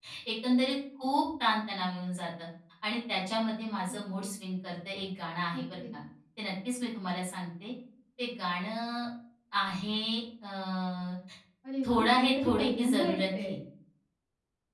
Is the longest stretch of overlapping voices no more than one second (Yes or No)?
No